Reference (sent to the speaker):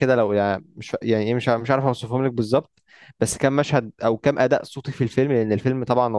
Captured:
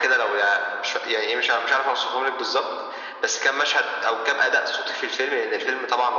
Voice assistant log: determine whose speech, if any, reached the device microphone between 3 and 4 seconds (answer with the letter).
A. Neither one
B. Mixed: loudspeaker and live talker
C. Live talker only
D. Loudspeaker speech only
D